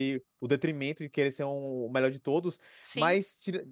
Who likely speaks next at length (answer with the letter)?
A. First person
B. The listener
A